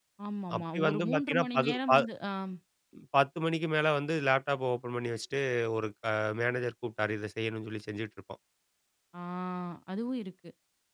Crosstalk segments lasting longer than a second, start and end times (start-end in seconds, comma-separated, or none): 0.6-1.9